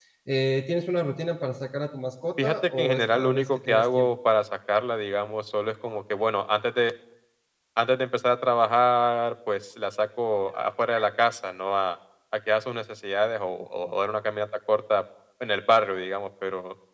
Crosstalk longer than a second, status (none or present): present